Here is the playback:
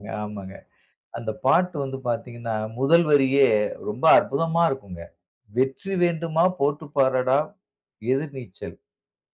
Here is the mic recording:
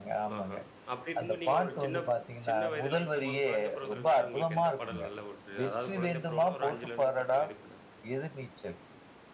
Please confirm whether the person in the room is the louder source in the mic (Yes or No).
No